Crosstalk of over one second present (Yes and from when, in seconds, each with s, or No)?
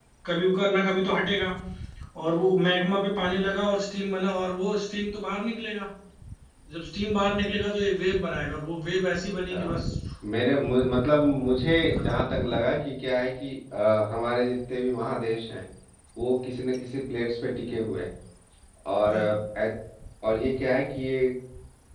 No